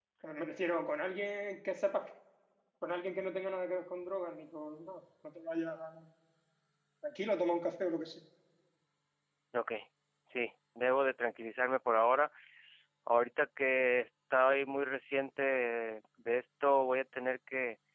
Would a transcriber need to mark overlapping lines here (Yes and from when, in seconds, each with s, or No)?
No